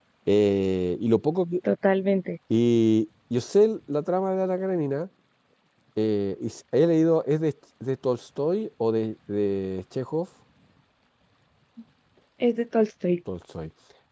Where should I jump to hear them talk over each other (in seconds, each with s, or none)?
none